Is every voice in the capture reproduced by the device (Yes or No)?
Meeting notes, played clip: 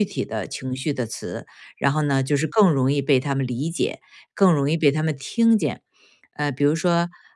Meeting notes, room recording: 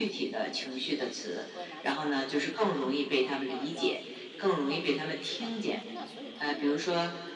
No